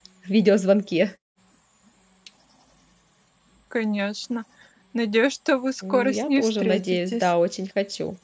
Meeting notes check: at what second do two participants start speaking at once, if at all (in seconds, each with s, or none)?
5.8 s